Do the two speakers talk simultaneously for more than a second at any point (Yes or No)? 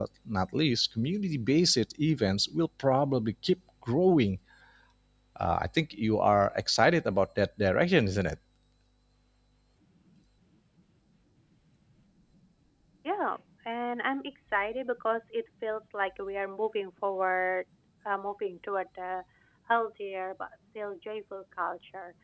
No